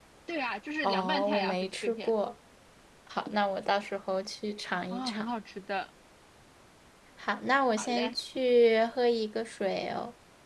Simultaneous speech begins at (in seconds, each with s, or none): 0.8 s